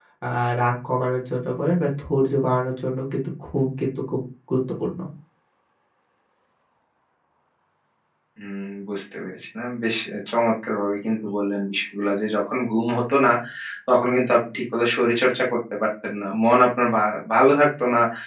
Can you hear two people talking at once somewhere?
No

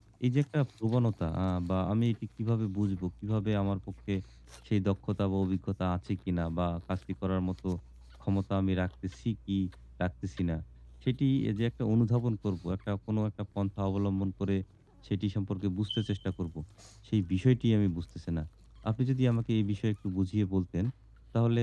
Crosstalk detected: No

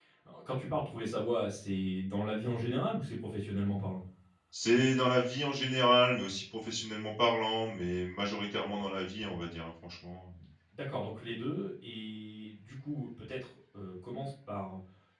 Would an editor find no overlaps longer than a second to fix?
Yes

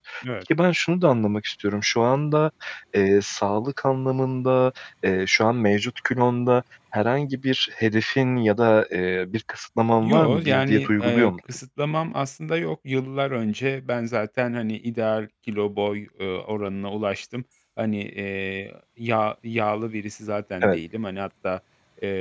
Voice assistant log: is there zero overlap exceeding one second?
No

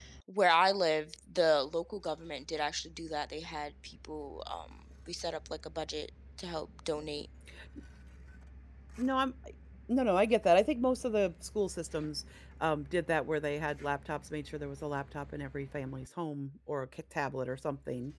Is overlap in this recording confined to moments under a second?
Yes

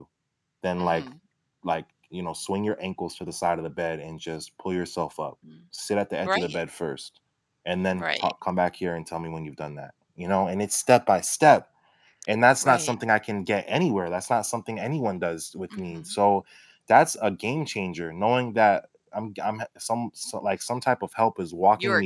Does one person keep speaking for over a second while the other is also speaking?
No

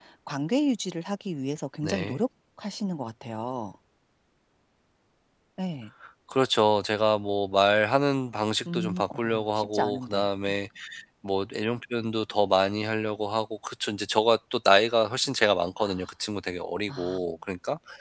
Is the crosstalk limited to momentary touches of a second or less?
No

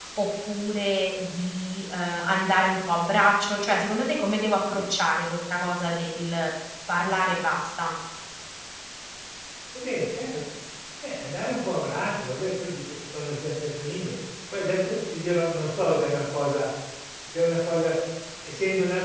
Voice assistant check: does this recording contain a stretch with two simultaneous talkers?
No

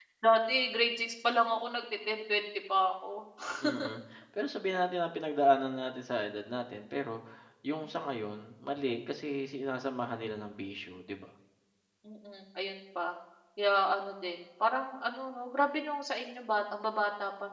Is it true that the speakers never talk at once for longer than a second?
Yes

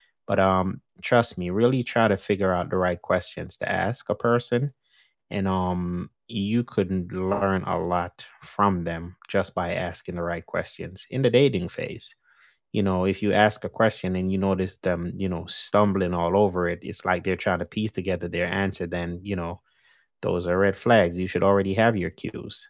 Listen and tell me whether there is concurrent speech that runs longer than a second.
No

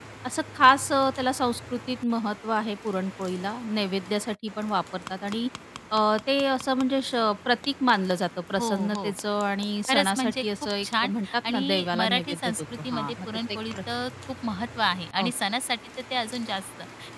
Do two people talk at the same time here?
Yes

